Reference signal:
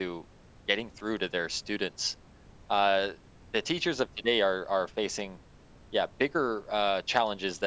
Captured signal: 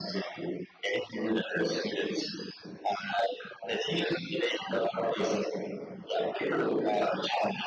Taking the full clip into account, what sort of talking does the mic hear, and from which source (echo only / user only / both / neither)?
echo only